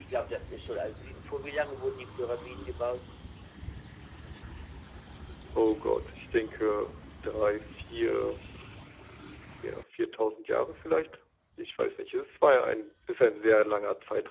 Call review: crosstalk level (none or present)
none